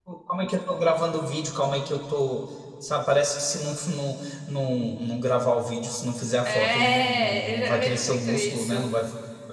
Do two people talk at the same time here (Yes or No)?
Yes